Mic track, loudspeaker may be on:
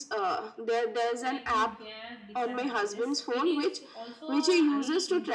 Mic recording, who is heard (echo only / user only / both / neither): both